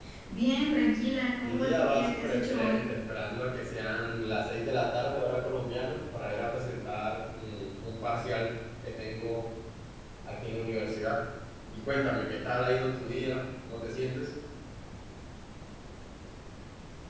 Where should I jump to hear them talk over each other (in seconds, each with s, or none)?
1.4 s